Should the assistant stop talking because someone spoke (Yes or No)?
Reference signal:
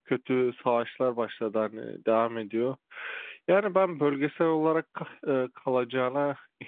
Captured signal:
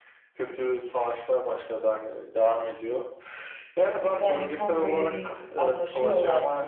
Yes